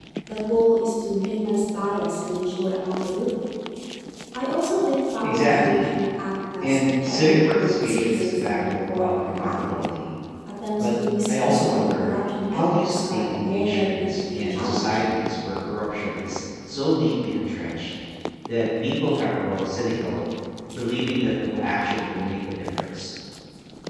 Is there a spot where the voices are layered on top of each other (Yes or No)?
Yes